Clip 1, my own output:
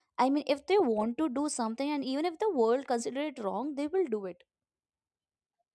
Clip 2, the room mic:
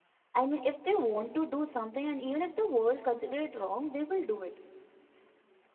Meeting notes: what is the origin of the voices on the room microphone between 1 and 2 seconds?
echo only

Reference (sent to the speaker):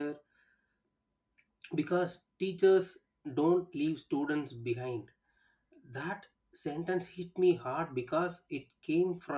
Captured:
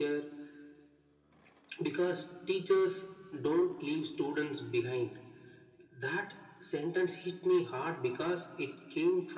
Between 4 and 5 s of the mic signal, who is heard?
echo only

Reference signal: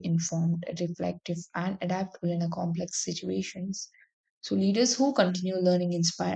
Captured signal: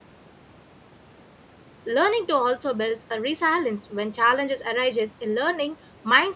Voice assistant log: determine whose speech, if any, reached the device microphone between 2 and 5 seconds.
user only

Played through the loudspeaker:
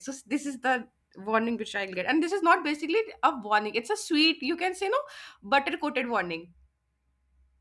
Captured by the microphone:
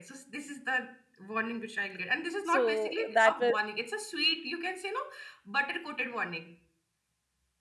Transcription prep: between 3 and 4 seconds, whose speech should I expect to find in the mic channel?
both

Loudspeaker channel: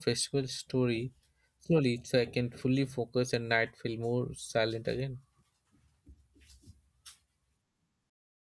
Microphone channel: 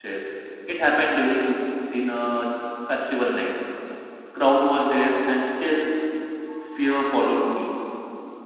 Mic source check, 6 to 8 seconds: user only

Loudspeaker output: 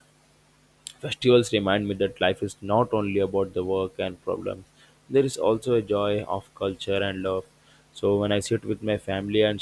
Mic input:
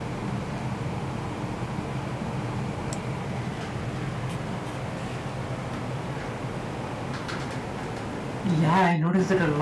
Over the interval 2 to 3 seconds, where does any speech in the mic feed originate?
neither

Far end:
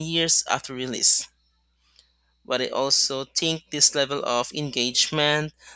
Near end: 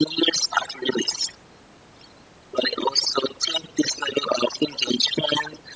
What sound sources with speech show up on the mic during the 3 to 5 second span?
echo only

